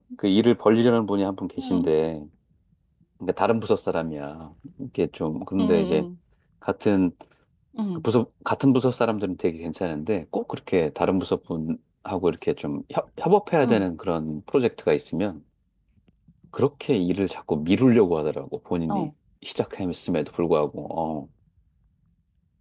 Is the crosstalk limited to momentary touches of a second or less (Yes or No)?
Yes